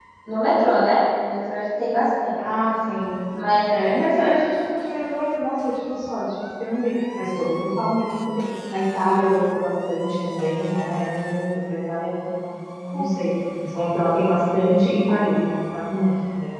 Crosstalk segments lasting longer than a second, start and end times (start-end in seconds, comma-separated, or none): none